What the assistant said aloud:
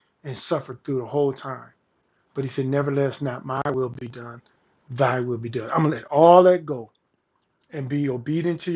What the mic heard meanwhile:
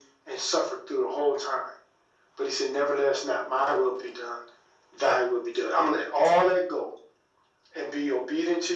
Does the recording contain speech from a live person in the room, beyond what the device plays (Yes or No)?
No